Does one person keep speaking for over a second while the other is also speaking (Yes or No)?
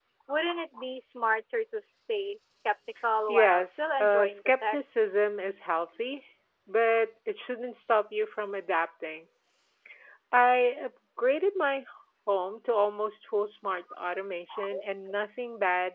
Yes